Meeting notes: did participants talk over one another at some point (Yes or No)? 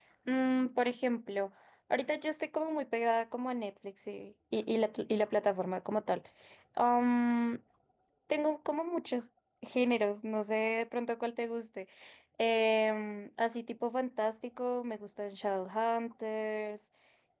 No